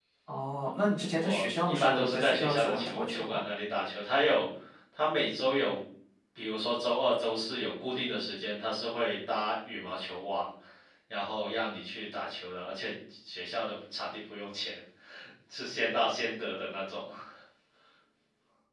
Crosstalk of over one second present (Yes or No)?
Yes